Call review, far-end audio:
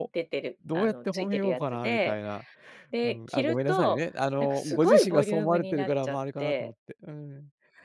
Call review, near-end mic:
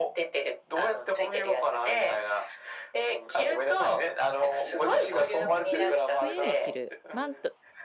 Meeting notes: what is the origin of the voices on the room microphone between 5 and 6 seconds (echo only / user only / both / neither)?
both